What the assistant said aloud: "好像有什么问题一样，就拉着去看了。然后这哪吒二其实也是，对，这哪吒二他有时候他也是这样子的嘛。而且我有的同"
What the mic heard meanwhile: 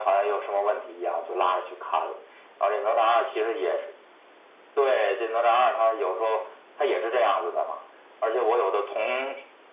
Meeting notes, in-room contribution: none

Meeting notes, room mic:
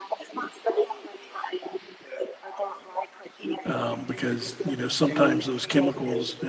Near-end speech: present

